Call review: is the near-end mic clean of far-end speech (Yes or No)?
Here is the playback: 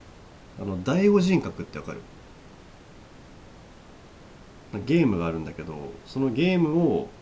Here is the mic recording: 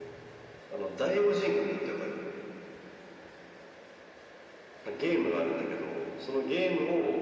No